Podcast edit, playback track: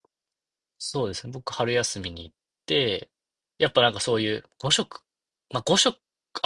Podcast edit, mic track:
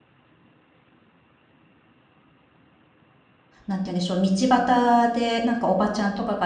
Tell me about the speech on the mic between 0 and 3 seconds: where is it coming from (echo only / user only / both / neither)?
neither